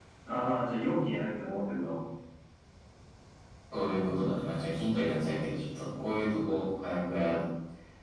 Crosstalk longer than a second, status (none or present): none